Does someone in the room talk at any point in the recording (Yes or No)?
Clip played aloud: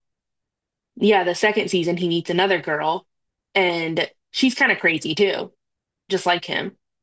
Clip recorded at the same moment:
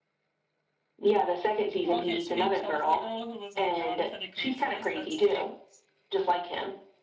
Yes